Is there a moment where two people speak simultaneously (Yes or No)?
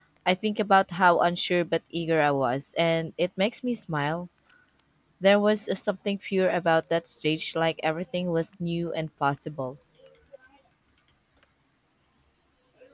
No